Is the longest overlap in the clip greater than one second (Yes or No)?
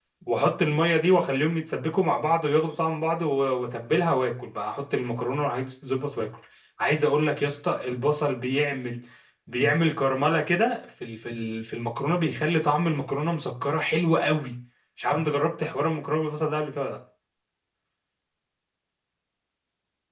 No